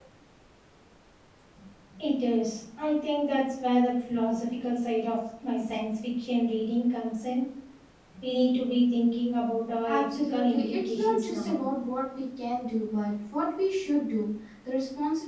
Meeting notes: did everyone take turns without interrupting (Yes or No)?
No